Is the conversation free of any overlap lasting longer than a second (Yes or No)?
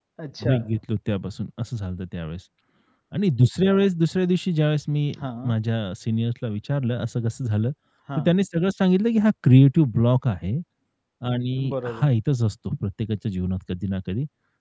Yes